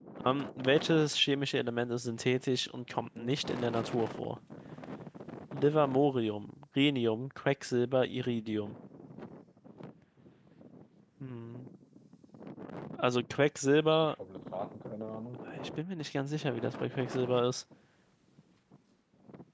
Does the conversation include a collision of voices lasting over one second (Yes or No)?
No